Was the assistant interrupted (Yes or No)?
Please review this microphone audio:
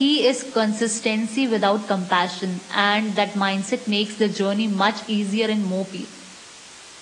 No